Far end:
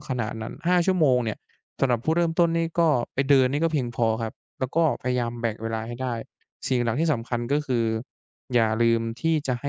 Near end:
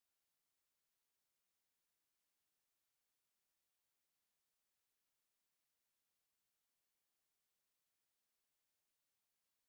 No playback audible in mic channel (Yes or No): Yes